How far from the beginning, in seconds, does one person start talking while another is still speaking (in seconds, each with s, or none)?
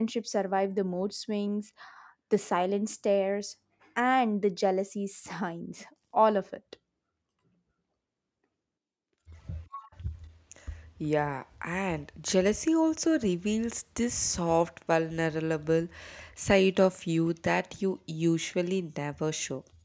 none